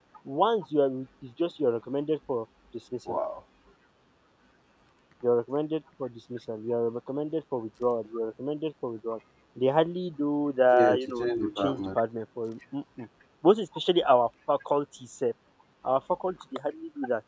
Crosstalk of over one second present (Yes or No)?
Yes